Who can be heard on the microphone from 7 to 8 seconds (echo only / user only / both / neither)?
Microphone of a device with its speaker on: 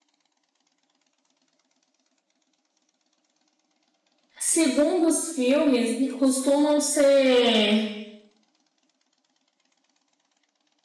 user only